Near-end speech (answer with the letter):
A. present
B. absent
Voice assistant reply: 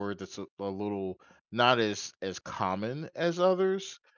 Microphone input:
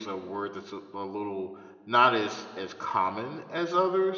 B